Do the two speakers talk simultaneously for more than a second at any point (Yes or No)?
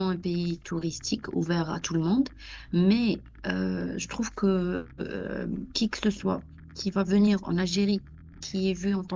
No